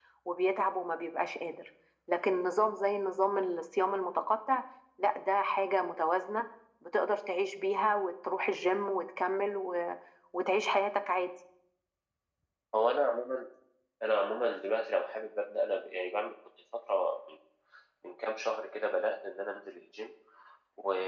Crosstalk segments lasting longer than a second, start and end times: none

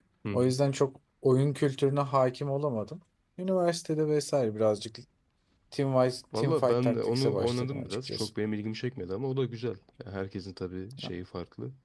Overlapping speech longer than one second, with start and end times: 6.3-8.3

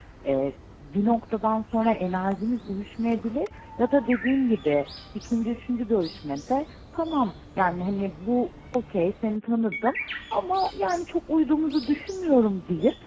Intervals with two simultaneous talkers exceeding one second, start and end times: none

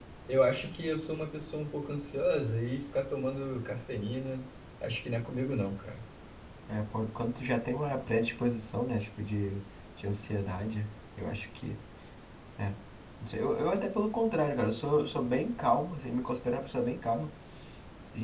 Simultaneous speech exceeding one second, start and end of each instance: none

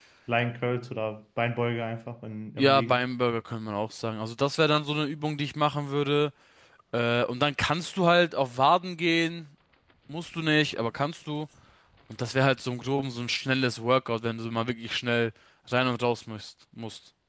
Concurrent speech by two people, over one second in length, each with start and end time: none

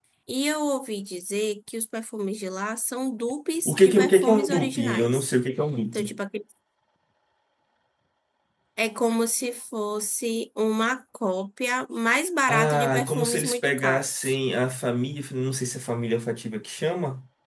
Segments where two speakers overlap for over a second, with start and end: 3.6-5.3, 12.5-14.4

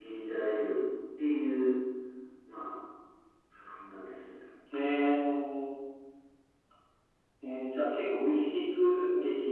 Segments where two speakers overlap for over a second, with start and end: none

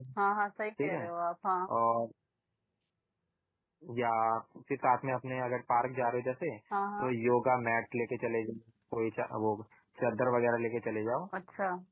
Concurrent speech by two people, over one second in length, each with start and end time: none

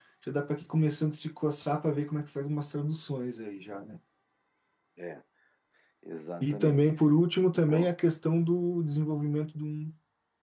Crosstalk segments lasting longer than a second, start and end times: none

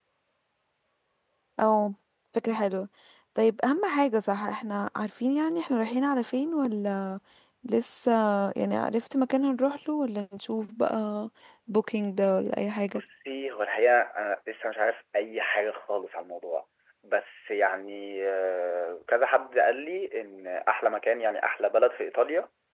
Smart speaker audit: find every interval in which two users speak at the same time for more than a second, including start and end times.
none

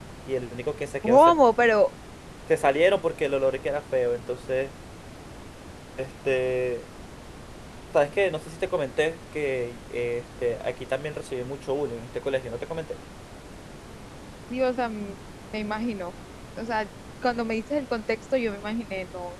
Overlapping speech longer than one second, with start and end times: none

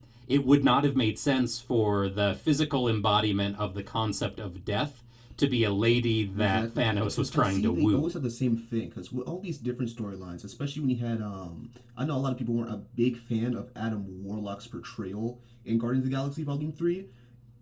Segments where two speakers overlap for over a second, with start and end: 6.3-8.1

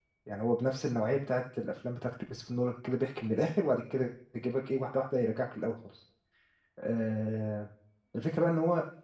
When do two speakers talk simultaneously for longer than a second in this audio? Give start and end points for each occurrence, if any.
none

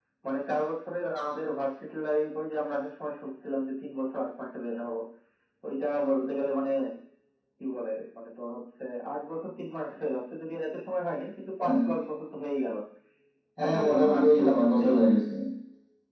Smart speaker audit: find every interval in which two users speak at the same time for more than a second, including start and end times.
13.6-15.0

